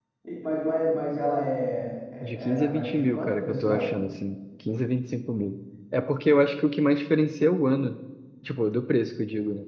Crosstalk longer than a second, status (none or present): present